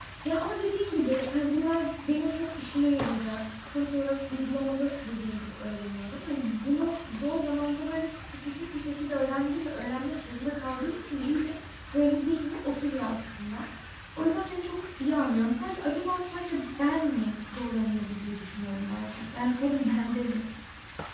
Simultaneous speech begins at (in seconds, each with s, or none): none